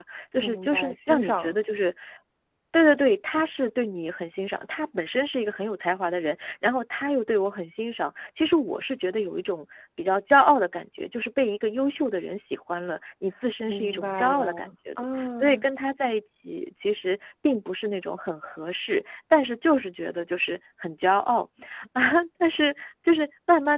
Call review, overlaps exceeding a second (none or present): present